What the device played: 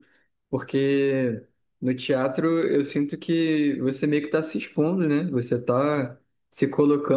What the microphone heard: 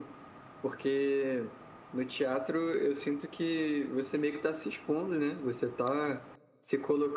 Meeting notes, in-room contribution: none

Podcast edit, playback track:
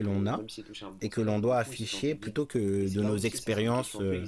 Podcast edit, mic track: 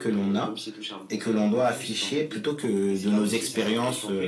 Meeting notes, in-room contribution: none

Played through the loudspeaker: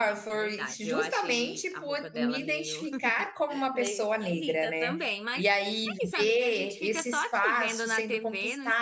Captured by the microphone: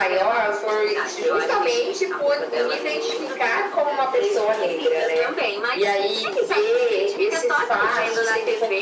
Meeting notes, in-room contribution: none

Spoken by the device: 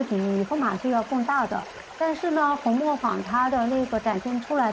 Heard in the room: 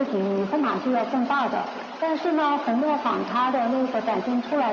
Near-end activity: none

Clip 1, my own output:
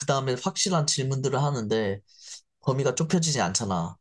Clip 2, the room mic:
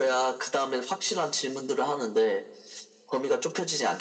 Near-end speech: none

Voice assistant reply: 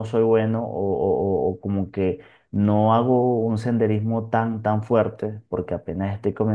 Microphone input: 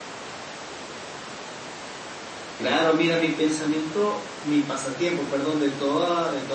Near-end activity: present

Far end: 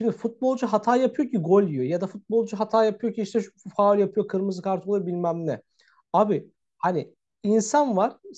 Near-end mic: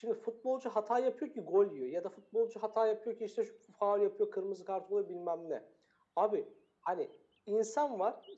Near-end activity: none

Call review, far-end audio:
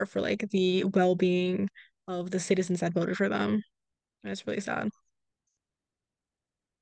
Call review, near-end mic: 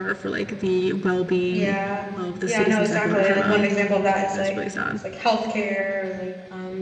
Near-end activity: present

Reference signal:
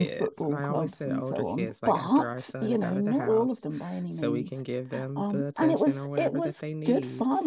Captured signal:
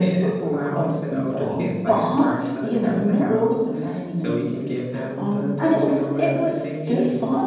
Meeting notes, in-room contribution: none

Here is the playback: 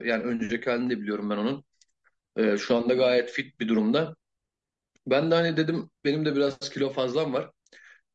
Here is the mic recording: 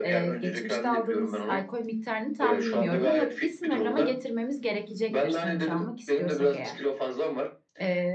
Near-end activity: present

